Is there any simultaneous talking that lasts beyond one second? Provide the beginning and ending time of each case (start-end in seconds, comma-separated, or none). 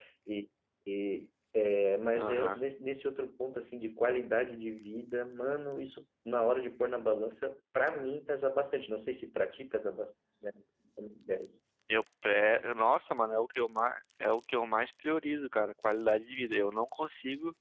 none